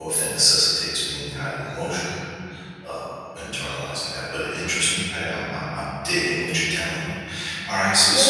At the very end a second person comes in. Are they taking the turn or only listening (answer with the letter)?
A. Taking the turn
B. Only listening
A